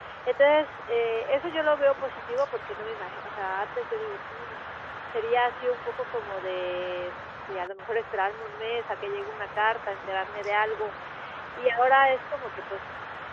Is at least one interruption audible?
No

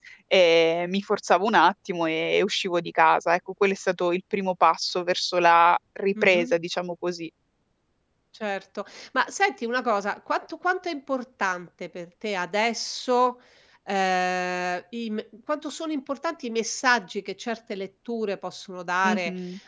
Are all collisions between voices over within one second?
Yes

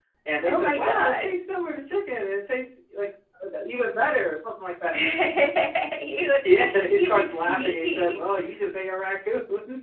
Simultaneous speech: Yes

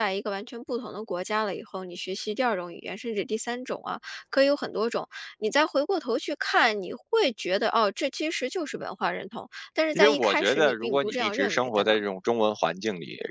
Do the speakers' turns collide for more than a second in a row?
Yes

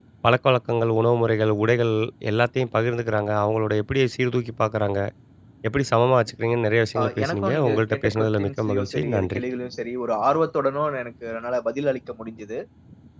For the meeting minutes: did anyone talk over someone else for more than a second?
Yes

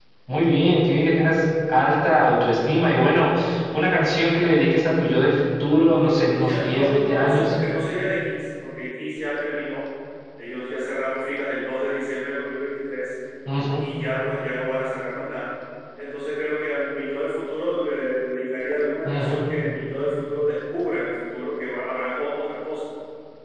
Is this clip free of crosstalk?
No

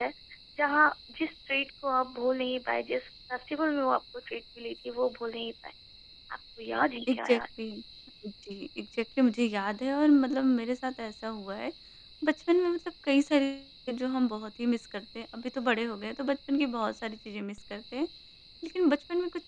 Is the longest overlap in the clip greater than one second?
No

